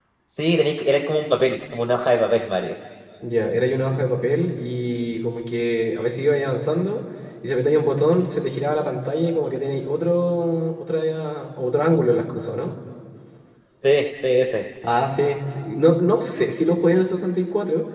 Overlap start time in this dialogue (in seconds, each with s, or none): none